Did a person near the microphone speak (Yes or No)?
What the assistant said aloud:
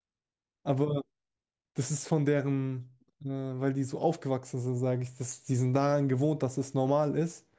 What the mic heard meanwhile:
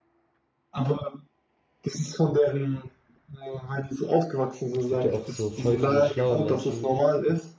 Yes